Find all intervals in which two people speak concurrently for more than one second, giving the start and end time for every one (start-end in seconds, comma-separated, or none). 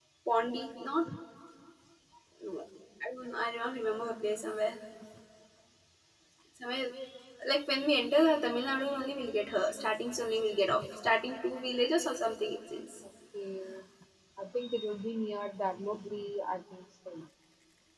none